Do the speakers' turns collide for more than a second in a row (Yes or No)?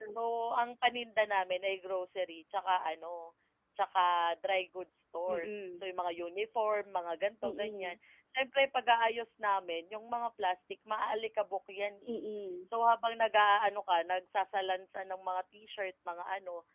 No